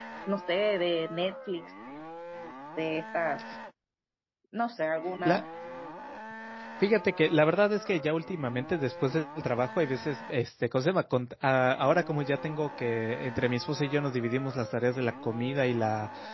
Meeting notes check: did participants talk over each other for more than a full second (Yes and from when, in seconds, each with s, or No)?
No